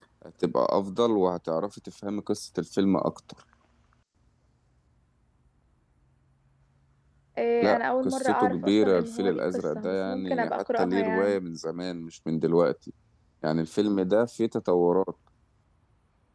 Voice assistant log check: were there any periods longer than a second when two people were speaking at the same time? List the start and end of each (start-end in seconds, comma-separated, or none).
7.6-11.4